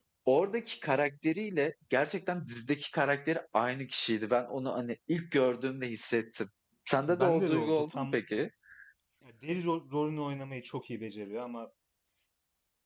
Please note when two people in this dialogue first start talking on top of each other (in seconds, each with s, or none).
7.0 s